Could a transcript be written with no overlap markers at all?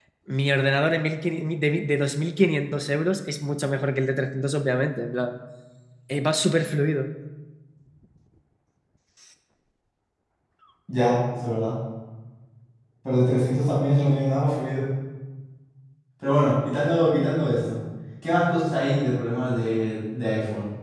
Yes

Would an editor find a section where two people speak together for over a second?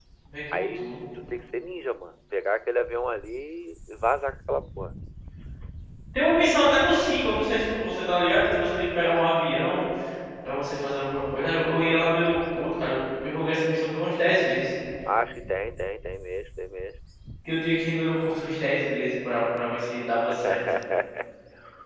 No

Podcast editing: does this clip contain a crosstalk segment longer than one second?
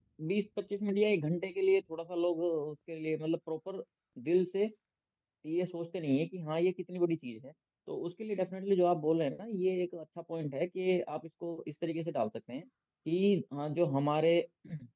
No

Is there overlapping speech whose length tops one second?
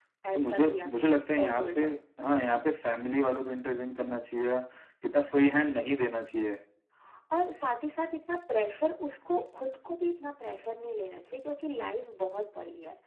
Yes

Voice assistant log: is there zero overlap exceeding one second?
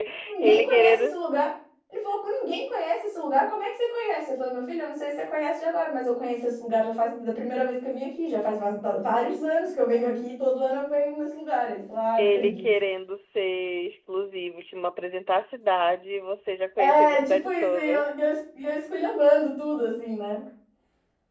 No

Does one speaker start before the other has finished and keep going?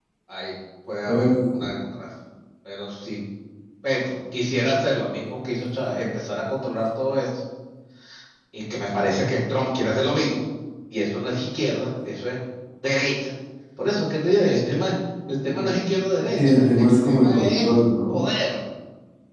Yes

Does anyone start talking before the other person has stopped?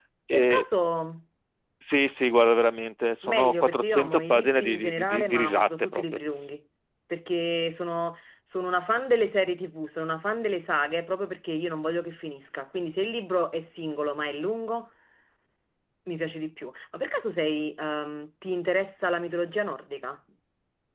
Yes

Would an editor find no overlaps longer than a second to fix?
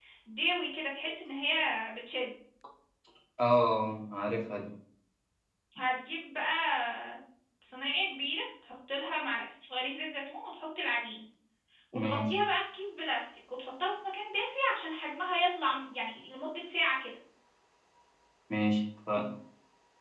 Yes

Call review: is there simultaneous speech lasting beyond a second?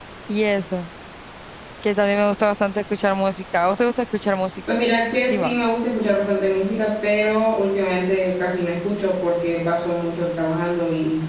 No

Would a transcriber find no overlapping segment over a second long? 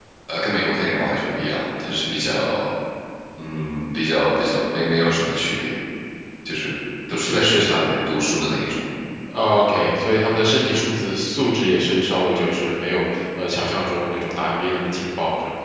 Yes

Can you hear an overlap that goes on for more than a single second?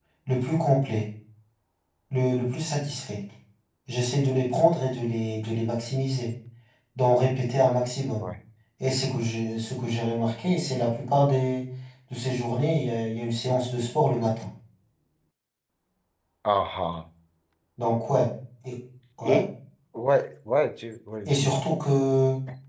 No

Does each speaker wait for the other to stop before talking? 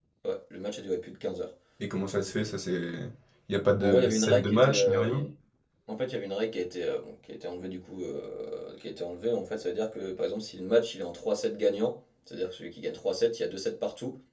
No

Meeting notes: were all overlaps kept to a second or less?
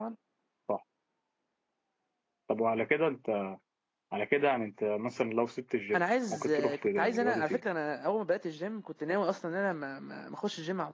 No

